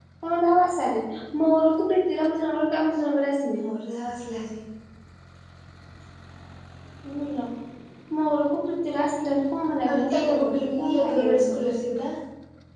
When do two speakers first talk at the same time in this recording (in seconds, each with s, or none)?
9.9 s